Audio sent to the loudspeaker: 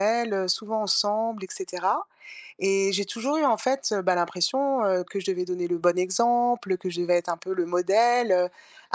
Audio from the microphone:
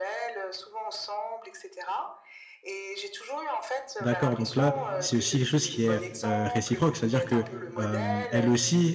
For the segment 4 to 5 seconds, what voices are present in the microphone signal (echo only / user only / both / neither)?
both